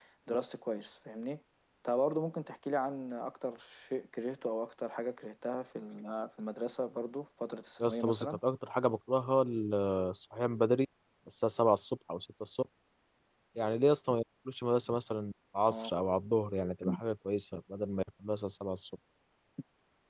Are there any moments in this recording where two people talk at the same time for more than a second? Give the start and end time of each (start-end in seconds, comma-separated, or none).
none